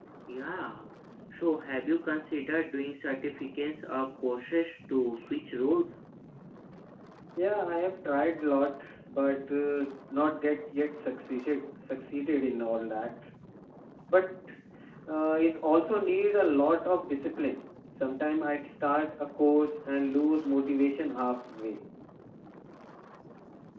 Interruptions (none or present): none